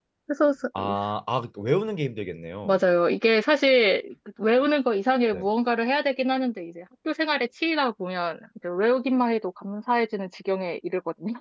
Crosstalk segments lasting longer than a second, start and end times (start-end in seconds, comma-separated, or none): none